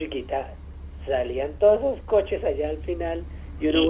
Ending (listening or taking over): taking over